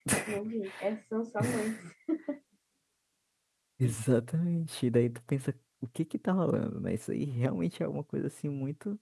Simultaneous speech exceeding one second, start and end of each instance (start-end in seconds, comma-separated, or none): none